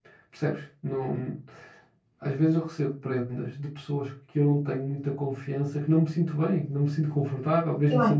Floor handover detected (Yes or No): Yes